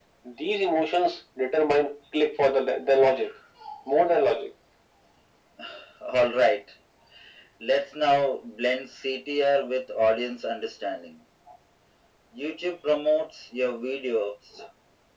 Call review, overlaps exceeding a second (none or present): none